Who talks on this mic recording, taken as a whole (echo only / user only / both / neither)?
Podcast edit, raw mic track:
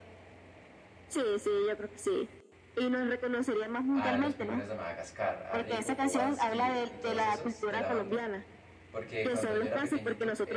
both